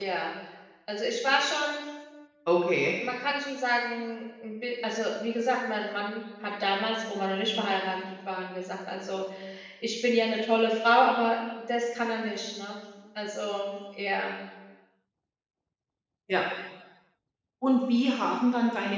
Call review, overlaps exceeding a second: none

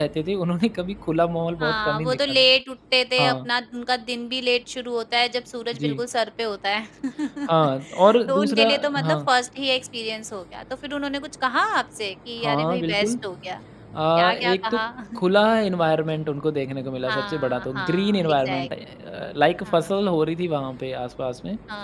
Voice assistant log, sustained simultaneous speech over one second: present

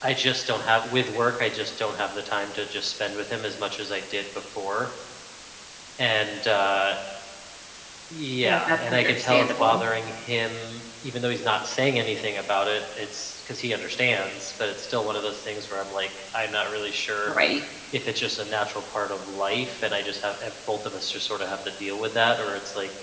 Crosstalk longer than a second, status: present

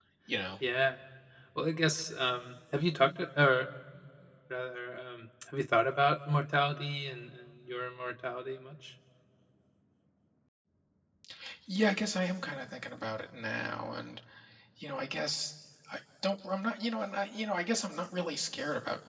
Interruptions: none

